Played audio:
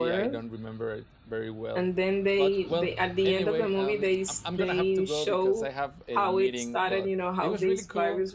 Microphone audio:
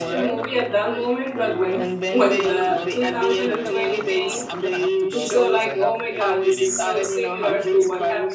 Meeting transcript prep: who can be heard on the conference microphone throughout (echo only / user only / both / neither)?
both